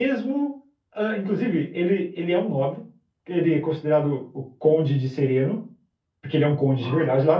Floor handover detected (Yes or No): No